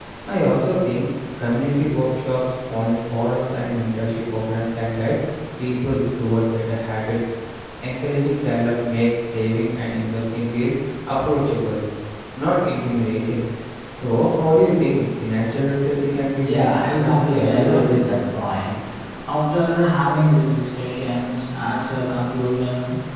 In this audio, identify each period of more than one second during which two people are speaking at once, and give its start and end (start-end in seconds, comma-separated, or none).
16.4-17.9